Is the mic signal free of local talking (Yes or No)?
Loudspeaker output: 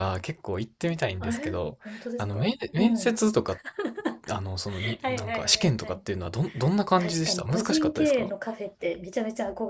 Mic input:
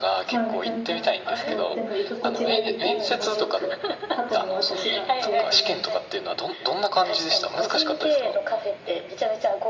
No